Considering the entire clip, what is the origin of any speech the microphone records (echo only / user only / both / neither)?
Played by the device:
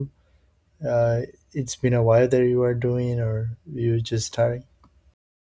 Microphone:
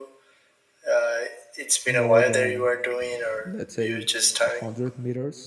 both